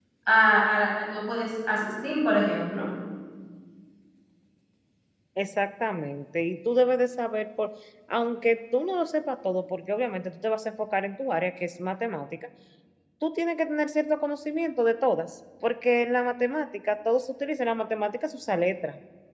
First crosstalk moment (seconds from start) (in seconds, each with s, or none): none